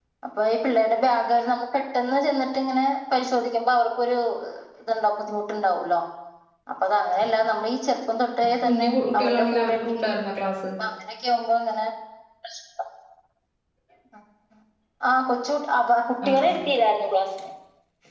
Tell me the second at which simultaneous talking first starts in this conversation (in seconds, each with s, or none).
8.6 s